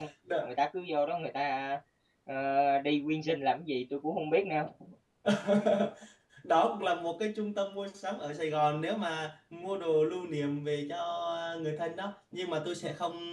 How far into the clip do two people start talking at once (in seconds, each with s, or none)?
none